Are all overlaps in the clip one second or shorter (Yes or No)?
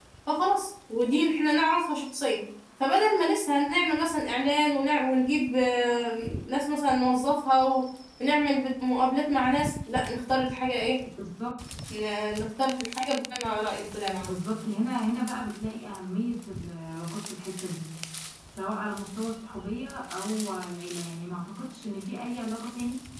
Yes